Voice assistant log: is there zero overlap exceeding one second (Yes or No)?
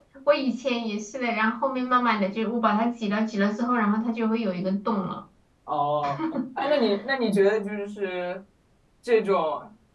Yes